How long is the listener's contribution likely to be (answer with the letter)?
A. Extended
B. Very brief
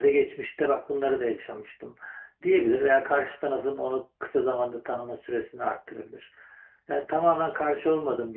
B